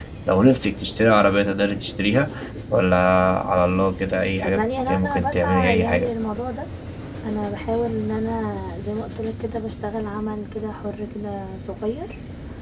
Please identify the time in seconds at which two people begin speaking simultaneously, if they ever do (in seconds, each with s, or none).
4.4 s